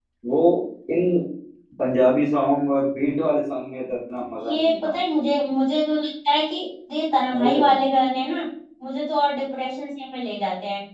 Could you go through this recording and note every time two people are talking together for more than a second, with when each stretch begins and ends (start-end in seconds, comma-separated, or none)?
none